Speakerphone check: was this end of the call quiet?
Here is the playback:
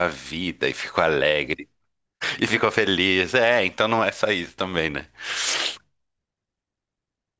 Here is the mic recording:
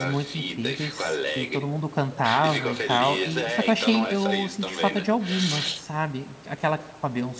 No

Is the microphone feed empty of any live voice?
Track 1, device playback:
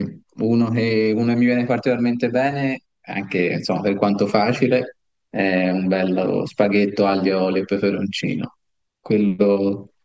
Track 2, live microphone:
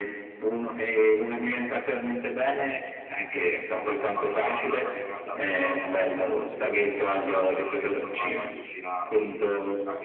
No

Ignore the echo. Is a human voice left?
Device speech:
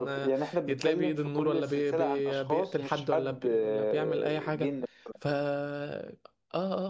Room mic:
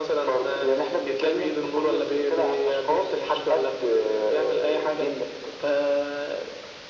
No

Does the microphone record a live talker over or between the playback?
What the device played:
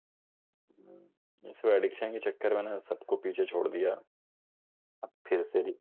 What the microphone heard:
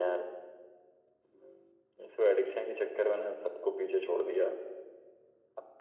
No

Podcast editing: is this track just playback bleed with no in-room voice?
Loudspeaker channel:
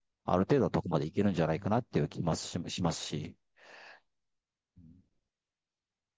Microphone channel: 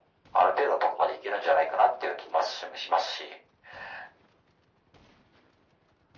Yes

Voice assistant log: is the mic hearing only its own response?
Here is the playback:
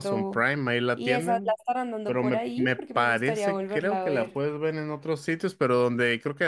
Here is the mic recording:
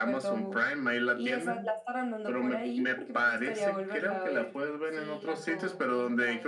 No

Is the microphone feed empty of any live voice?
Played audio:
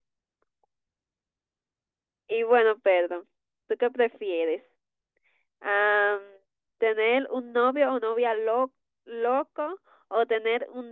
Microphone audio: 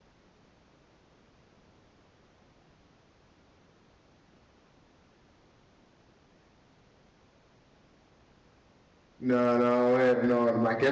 No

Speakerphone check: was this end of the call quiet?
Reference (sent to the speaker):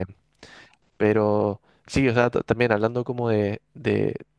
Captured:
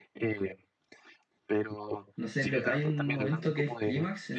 No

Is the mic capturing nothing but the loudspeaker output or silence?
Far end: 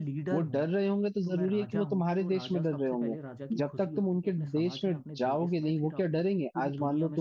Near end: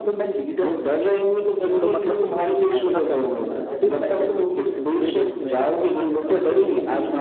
No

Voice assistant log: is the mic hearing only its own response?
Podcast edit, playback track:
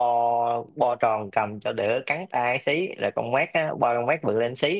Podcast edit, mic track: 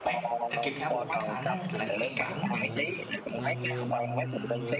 No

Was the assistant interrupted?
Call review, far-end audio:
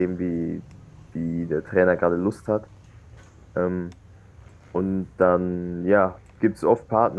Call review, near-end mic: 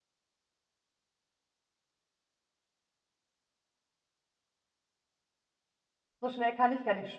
Yes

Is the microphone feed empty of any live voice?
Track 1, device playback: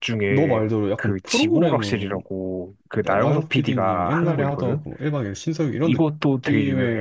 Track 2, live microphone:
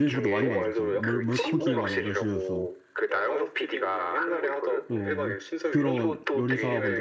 No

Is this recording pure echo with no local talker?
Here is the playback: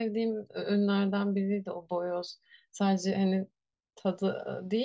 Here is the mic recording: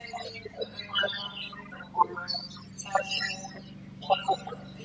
Yes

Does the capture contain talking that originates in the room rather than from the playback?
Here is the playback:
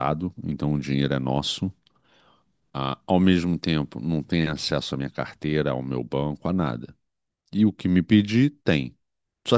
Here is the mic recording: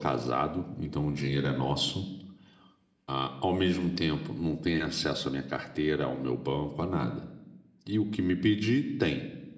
No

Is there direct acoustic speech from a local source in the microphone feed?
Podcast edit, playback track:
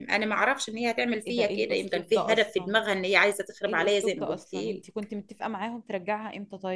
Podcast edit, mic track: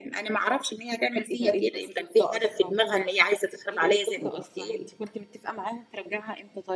No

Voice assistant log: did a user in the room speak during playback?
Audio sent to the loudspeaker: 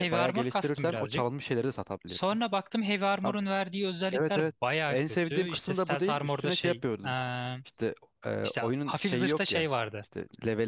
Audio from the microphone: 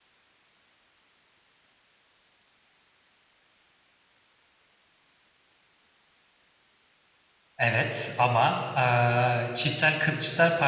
Yes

